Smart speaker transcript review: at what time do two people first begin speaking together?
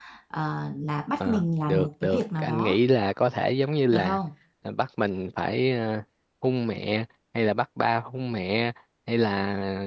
1.2 s

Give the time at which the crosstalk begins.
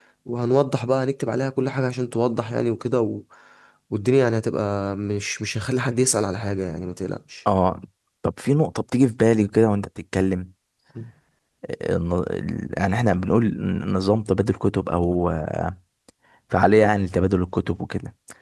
none

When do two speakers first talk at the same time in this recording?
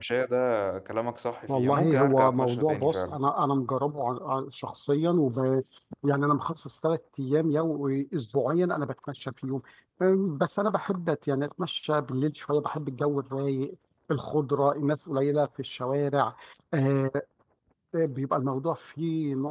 1.5 s

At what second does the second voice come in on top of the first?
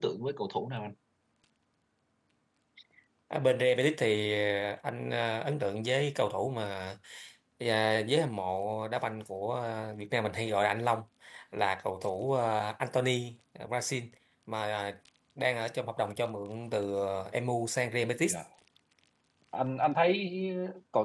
none

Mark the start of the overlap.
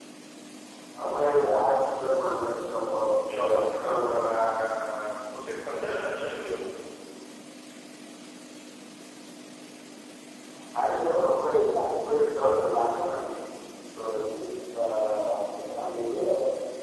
3.2 s

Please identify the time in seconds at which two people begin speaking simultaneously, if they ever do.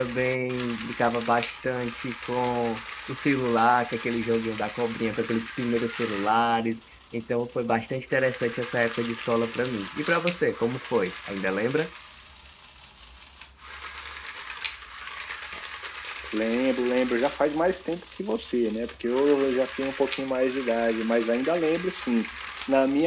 none

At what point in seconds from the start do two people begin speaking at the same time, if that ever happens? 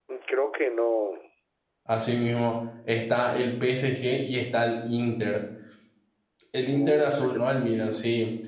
6.7 s

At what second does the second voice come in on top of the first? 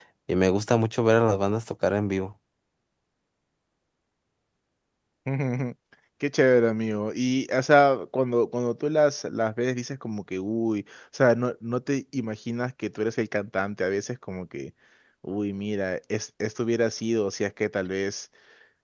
none

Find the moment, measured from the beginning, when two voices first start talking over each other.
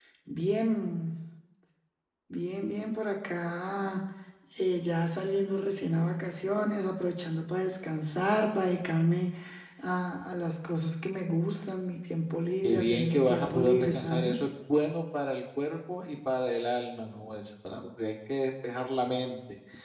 12.6 s

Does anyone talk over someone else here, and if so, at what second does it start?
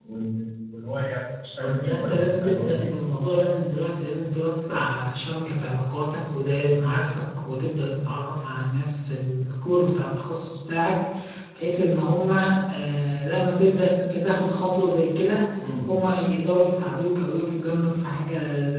1.6 s

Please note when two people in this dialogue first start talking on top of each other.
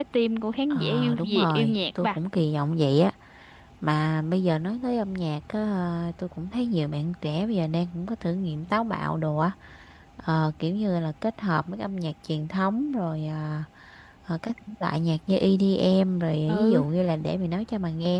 0.7 s

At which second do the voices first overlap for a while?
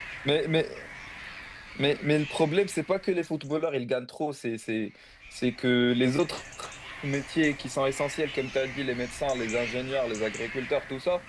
none

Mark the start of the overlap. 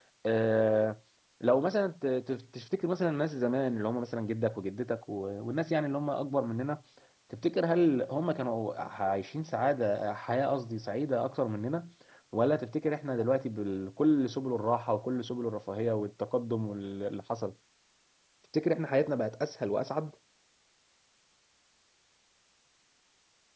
none

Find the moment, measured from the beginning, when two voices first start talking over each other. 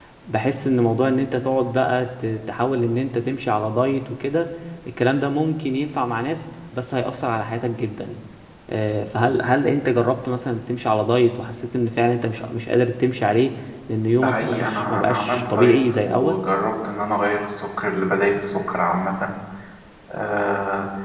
14.2 s

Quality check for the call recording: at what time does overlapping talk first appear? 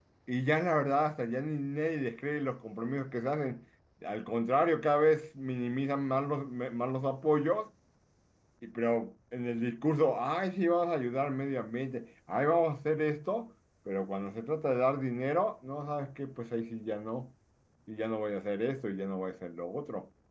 none

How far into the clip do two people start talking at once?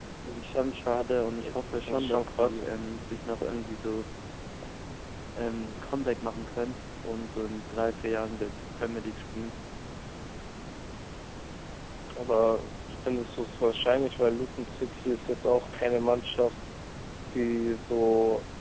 1.4 s

